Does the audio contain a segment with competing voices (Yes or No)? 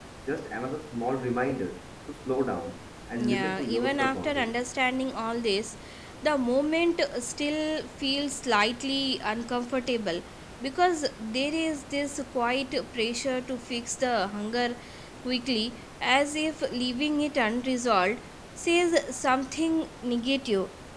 Yes